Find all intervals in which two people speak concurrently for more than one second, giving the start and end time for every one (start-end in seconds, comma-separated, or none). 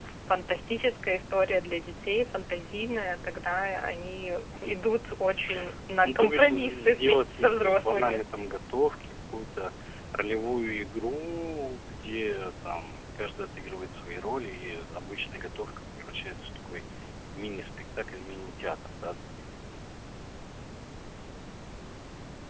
6.1-8.2